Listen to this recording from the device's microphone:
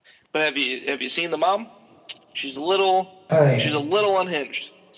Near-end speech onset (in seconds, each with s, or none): 3.3 s